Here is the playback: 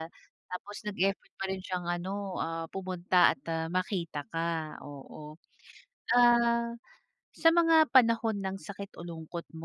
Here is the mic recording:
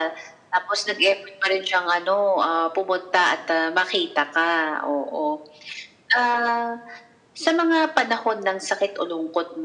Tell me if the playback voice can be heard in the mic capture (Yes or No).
Yes